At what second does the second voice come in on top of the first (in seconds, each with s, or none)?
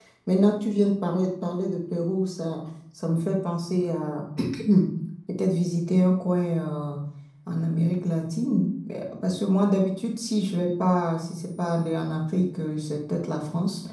none